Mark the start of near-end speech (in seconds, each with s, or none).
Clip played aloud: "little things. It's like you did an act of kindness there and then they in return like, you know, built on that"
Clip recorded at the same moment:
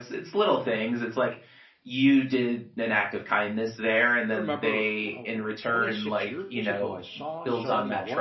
4.3 s